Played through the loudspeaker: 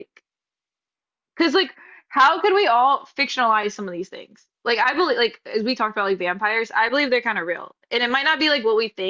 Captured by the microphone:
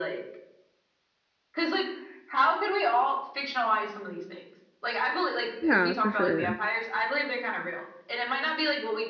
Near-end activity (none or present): present